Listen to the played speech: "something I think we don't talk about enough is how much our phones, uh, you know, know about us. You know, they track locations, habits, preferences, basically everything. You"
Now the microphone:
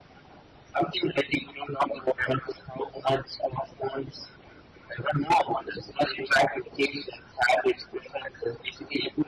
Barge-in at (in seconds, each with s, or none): none